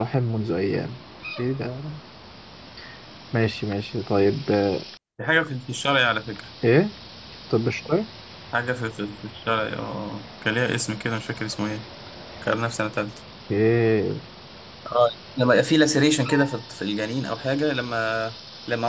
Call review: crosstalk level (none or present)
none